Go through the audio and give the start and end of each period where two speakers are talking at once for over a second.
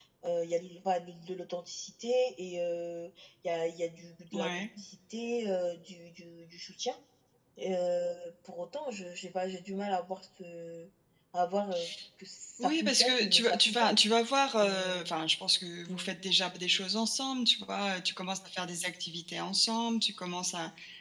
12.6-14.0

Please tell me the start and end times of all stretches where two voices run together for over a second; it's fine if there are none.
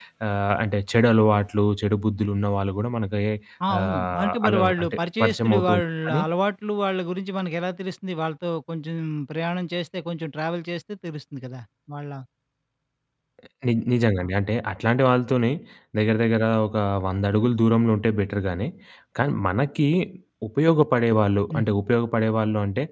3.8-6.2

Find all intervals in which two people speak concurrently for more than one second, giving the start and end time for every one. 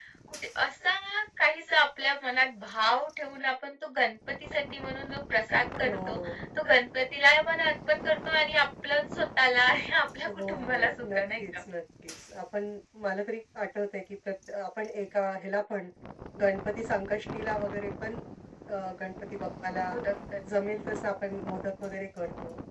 10.2-11.4

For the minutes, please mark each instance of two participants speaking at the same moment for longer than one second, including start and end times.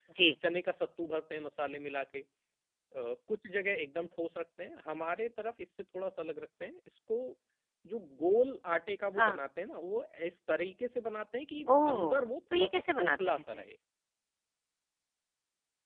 11.7-13.4

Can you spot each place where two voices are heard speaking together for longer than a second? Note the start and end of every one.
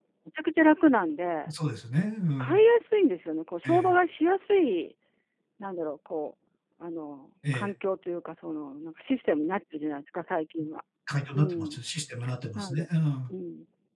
none

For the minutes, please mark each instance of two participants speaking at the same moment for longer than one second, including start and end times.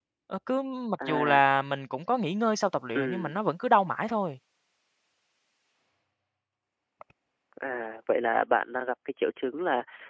none

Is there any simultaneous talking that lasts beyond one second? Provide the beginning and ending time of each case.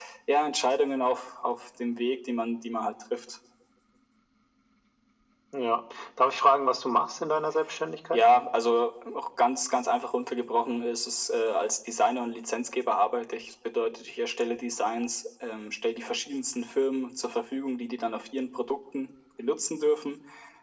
none

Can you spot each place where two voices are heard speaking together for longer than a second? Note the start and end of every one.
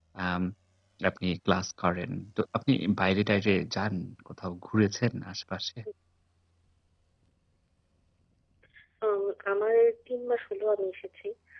none

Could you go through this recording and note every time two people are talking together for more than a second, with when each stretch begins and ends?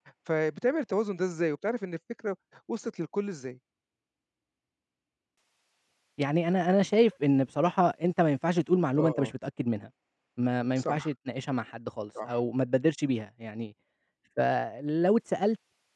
none

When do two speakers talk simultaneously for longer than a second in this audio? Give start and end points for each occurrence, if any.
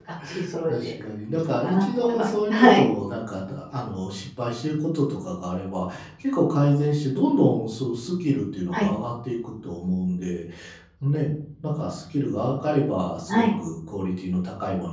1.4-2.9

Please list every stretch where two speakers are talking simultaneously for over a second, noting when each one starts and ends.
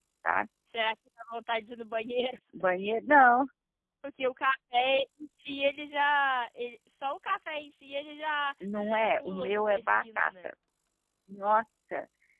8.8-10.5

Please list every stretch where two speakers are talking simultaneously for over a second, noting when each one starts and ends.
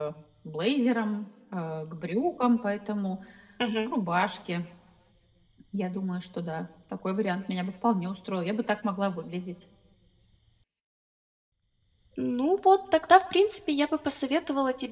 none

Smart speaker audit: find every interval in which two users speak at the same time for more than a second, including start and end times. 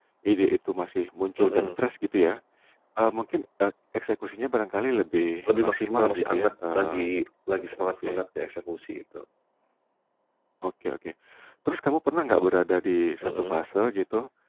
5.5-7.0

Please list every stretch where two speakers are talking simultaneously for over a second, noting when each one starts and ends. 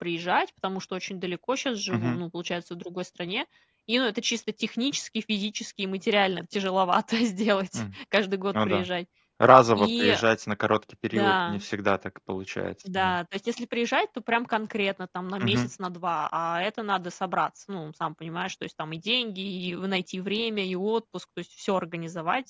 none

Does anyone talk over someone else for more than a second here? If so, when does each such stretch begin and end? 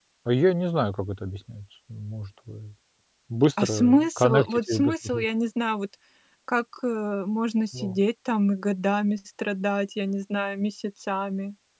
3.6-5.2

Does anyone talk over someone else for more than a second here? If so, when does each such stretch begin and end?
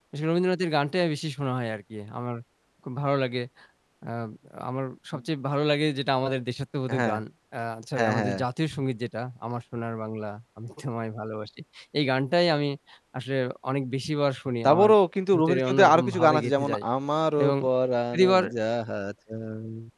15.3-16.8

